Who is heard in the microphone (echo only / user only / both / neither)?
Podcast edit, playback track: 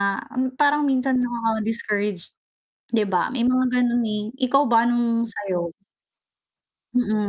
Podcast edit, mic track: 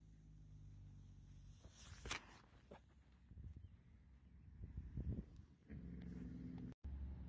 neither